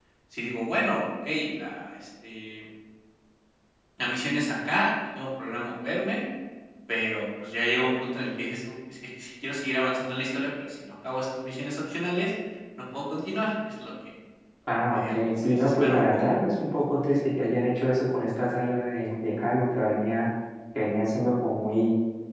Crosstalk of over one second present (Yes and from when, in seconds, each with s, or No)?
Yes, from 14.8 s